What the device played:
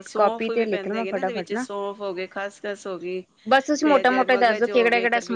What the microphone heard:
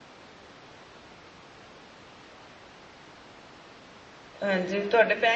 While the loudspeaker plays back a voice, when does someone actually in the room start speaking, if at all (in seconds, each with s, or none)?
4.4 s